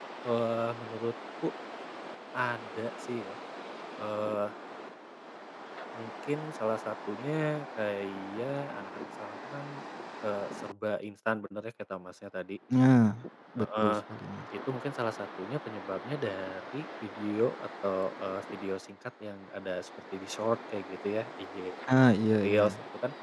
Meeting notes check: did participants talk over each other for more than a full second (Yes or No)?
No